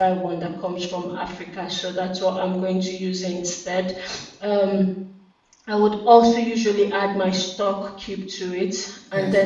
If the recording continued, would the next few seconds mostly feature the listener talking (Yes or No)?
No